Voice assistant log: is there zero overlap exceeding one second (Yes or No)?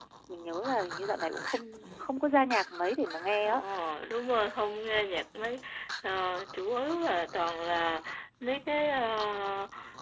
Yes